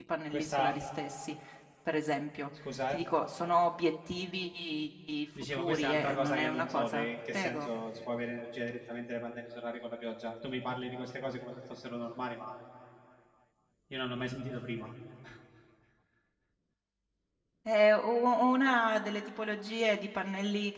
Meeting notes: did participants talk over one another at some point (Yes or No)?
Yes